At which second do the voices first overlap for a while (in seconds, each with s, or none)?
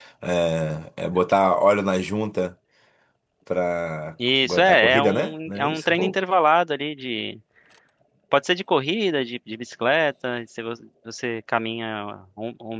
4.2 s